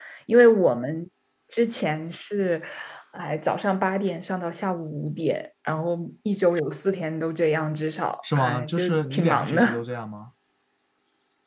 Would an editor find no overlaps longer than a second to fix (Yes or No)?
No